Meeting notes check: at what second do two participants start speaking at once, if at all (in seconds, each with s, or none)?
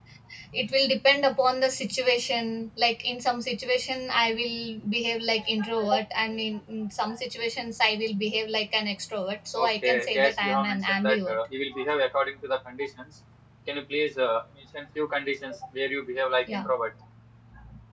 9.6 s